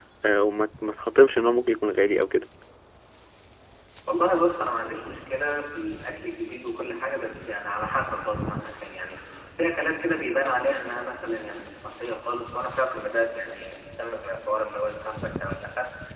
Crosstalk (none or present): none